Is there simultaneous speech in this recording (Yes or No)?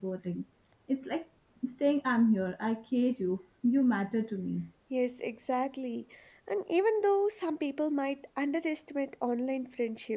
No